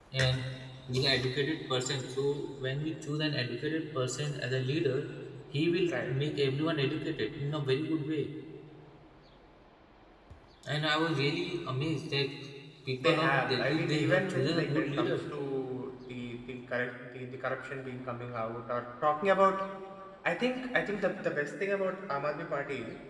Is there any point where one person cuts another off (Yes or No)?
Yes